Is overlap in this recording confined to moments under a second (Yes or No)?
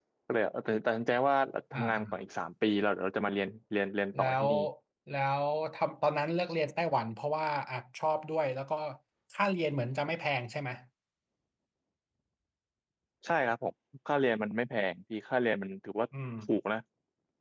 Yes